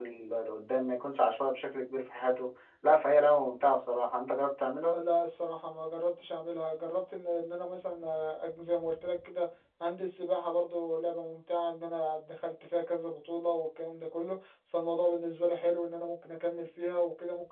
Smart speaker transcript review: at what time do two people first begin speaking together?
none

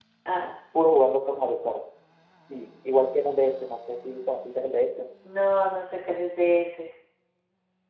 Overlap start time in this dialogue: none

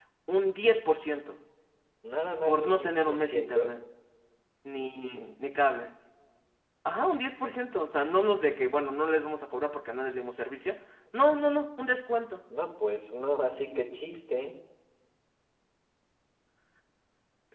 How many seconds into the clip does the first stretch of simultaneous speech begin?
2.5 s

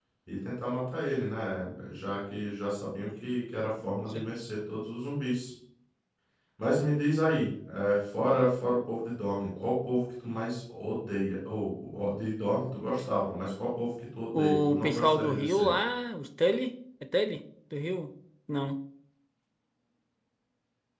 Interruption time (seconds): 14.3 s

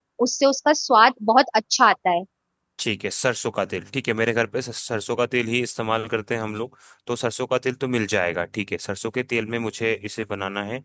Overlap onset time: none

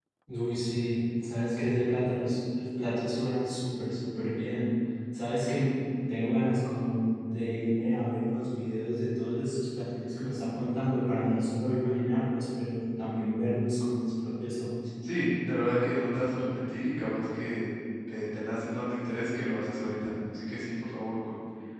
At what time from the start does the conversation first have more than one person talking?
none

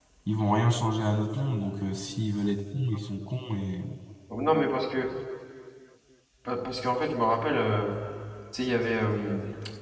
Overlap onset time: none

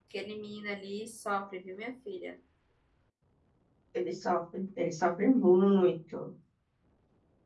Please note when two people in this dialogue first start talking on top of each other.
none

